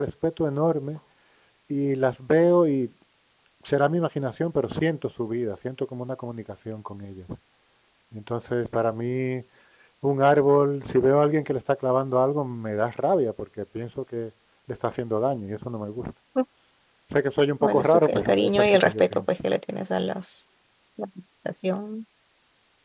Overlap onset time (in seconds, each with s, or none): 17.6 s